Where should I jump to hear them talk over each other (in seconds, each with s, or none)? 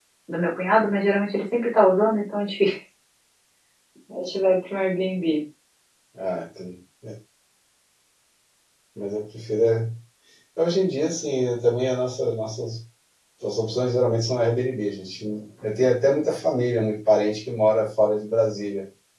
none